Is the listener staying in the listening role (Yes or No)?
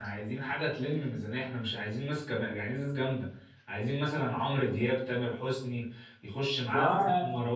Yes